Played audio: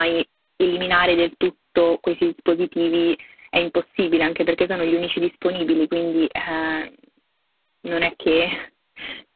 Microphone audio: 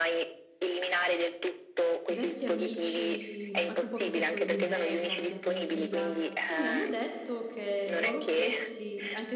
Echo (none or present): present